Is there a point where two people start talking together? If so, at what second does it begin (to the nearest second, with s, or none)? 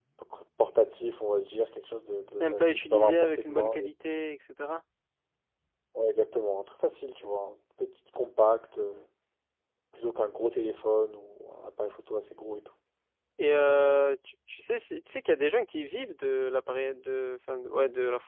2 s